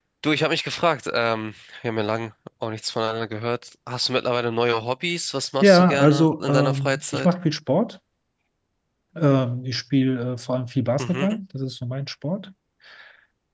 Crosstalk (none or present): present